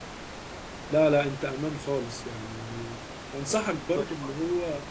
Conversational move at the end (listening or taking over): listening